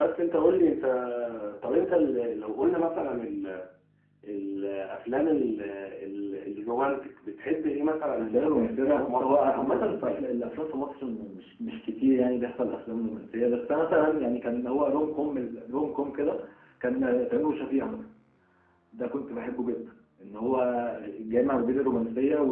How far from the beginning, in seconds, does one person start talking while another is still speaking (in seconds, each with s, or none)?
8.2 s